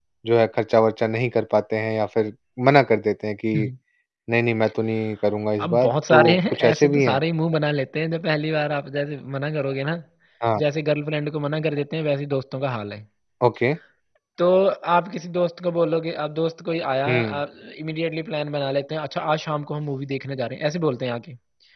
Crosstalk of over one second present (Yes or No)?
Yes